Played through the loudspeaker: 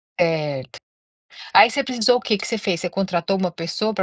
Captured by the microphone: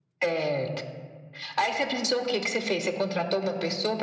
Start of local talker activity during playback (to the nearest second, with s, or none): none